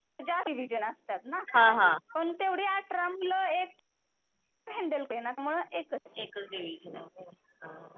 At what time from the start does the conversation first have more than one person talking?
none

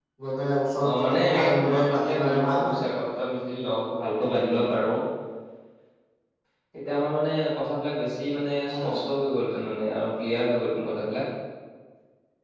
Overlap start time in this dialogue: 1 s

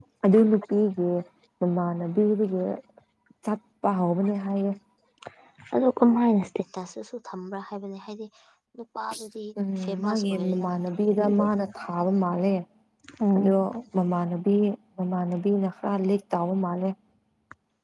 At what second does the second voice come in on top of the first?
10 s

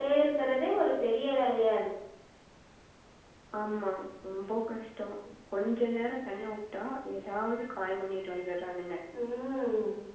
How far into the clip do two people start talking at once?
none

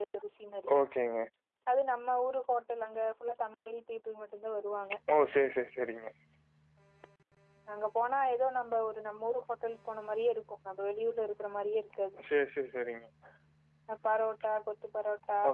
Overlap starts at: none

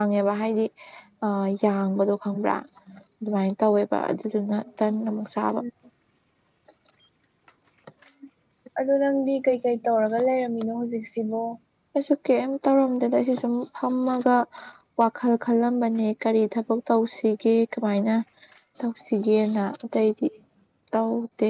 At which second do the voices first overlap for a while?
none

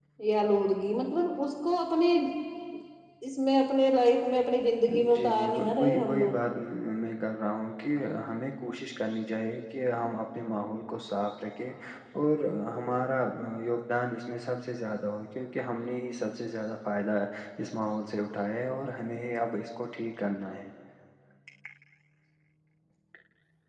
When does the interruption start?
5 s

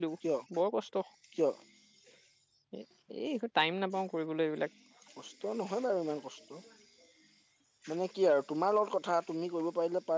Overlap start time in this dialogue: none

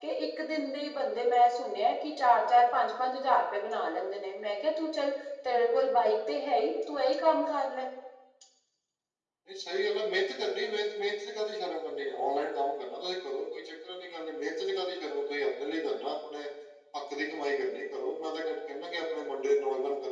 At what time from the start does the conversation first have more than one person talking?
none

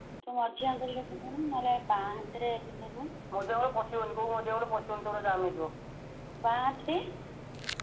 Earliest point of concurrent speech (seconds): none

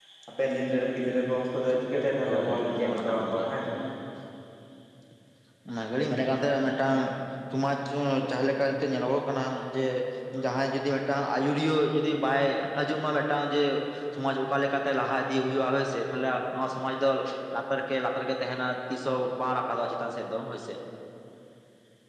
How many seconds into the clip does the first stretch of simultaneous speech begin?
2 s

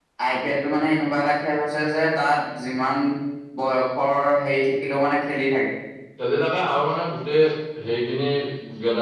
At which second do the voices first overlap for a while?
none

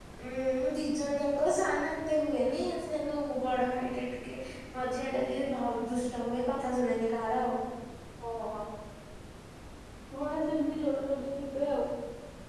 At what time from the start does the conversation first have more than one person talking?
none

